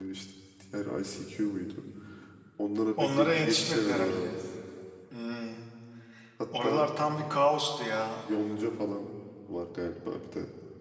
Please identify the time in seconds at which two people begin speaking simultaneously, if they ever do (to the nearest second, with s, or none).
3 s